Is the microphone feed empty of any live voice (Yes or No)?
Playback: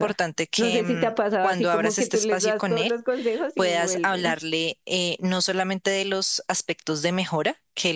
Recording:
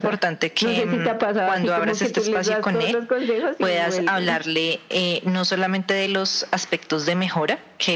Yes